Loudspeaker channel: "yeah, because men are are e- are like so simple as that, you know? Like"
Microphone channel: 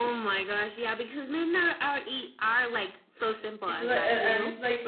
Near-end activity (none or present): present